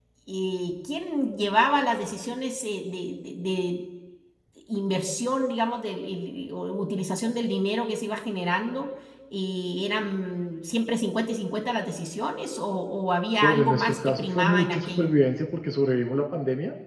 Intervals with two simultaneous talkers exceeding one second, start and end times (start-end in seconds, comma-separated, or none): 13.4-15.1